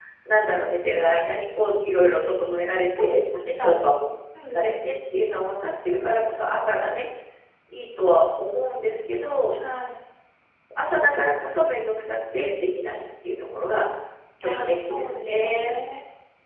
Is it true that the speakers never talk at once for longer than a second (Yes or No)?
No